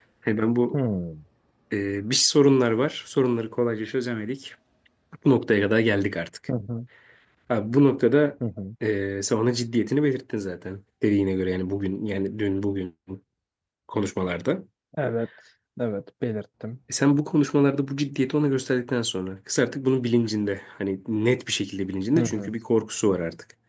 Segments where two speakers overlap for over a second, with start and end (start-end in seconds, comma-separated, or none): none